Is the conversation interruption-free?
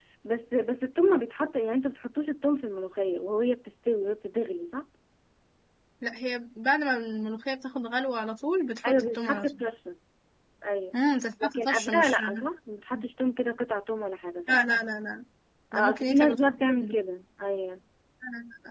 No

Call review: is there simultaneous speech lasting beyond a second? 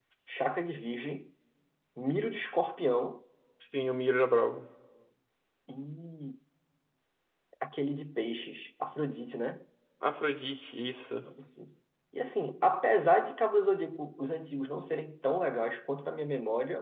No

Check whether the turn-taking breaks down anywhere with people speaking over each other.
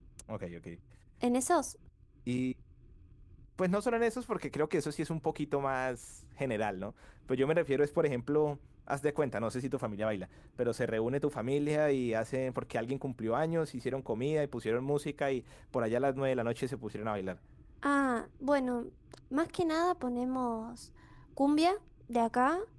No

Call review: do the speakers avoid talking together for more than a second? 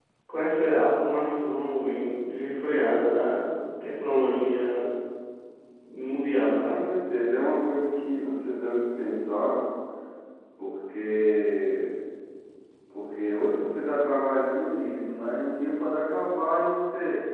Yes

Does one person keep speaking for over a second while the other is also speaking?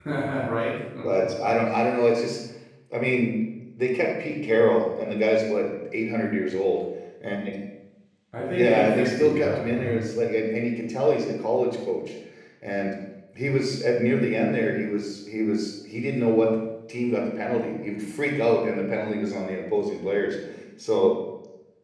Yes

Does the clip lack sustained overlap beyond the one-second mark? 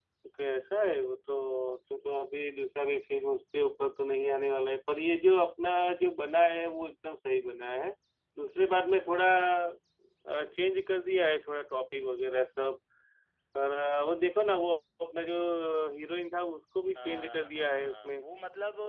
No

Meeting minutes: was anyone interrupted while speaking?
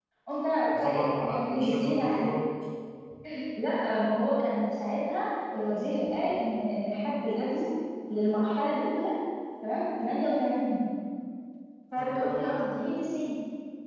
Yes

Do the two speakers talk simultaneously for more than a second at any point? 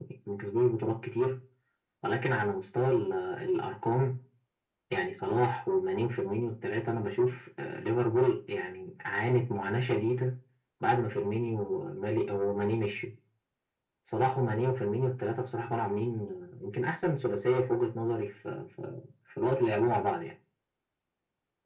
No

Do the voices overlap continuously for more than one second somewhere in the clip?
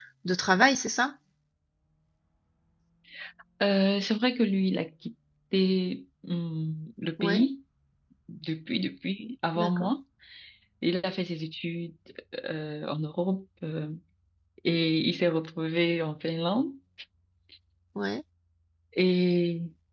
No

